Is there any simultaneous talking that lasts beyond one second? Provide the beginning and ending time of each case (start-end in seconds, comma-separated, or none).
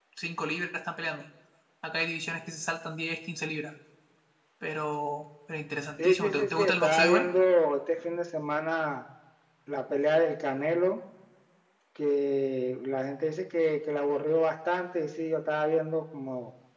6.0-7.3